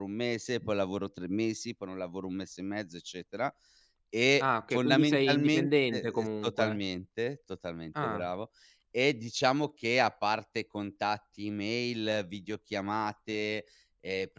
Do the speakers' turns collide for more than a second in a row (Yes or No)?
Yes